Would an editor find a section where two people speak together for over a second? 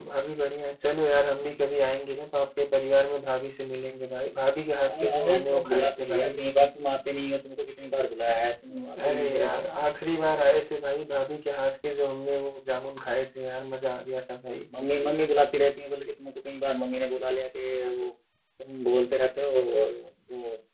Yes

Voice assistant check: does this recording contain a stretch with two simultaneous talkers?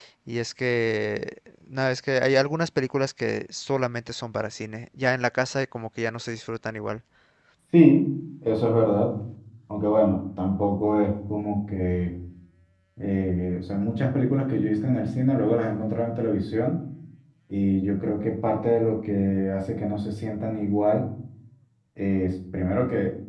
No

